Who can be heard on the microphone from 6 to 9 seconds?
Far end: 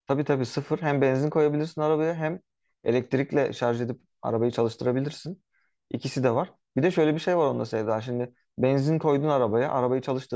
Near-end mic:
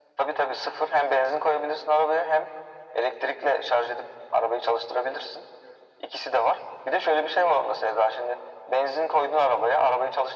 echo only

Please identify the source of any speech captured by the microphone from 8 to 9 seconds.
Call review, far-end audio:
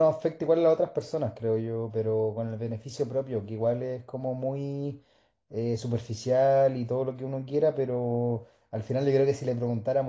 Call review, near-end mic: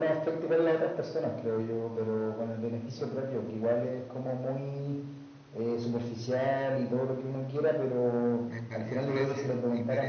both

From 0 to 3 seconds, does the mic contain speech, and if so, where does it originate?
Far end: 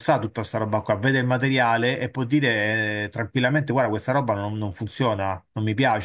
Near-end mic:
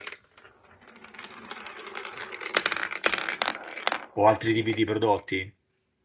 neither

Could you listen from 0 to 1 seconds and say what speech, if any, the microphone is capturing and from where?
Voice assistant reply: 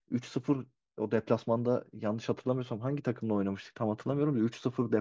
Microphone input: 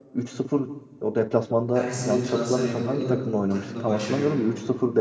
echo only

